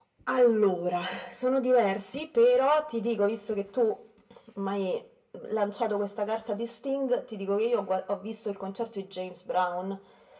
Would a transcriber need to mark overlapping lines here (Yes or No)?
No